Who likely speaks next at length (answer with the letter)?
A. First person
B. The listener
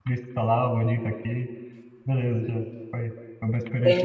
B